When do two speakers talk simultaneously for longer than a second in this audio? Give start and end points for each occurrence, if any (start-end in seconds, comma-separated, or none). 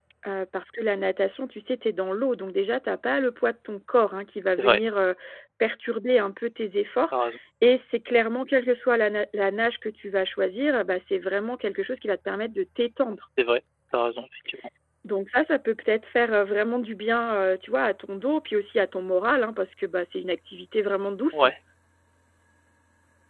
none